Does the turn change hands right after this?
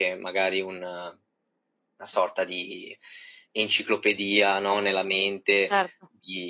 No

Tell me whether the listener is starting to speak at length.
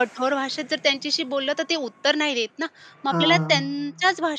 No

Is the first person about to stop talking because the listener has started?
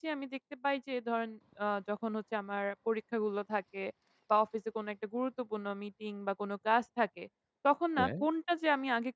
No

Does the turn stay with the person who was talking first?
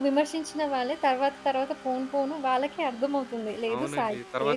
No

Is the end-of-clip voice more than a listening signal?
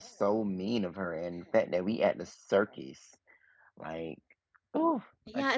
Yes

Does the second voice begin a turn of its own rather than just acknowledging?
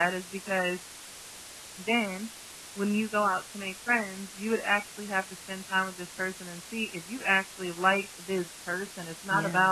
No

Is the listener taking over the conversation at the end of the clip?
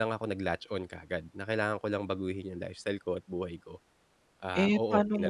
Yes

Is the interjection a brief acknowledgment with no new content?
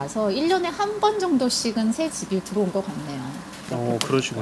No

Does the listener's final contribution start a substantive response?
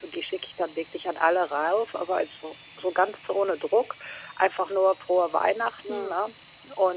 No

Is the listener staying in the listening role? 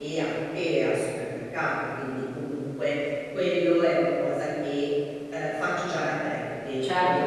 No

